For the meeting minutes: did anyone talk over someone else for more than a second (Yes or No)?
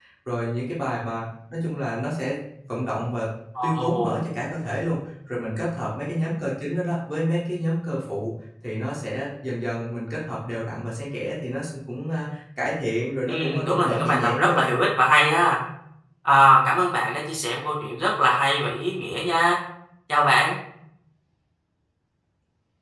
Yes